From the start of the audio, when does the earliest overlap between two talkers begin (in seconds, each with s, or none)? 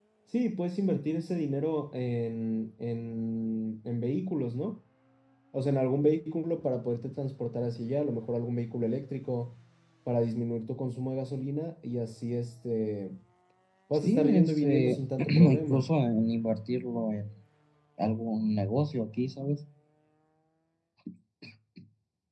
13.9 s